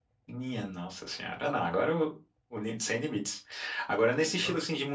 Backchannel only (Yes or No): Yes